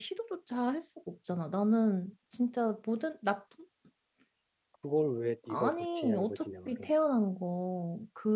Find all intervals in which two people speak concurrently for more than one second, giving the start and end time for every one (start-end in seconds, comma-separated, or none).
5.5-6.9